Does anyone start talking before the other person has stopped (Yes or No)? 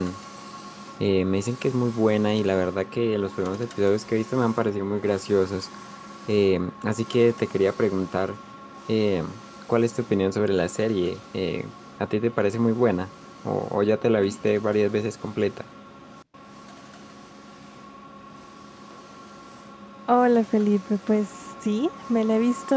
No